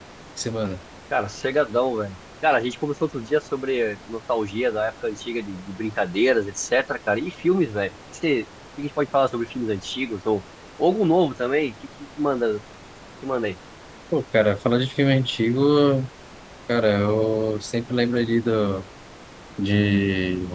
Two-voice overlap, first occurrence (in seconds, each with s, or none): none